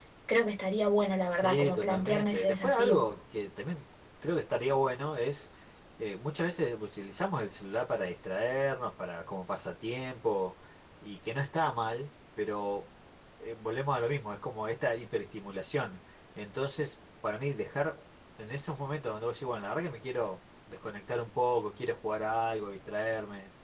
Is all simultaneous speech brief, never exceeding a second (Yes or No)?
No